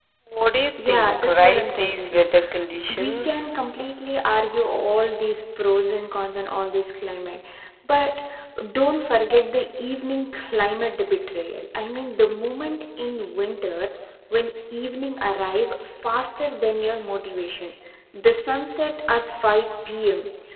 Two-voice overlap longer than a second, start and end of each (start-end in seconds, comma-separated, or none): 0.8-2.3